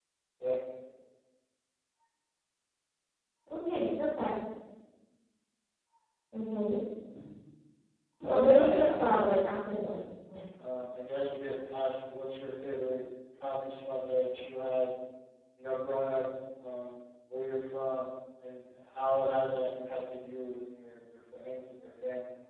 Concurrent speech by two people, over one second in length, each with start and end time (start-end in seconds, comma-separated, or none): 8.3-9.9